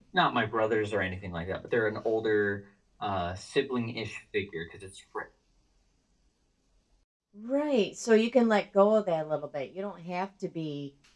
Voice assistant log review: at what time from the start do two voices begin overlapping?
none

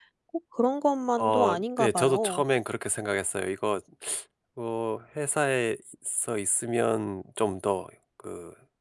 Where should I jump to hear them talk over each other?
1.2 s

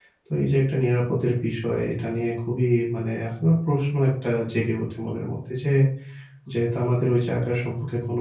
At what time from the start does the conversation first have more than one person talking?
none

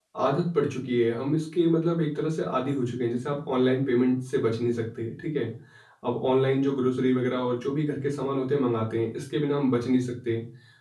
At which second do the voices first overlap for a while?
none

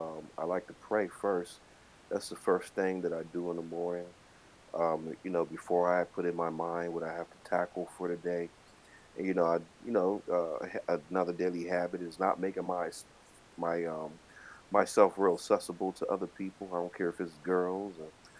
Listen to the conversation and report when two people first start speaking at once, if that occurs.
none

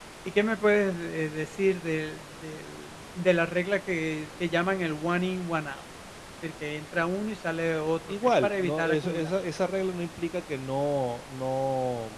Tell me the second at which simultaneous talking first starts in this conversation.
8.1 s

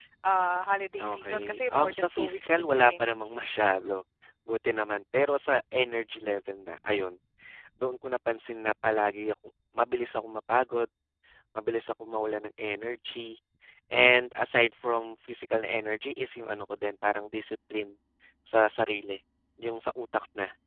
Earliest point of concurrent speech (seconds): 1.0 s

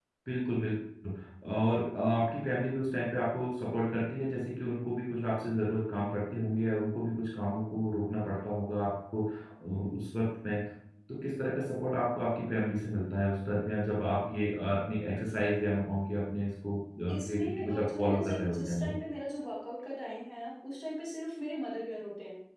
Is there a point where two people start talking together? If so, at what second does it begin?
17.2 s

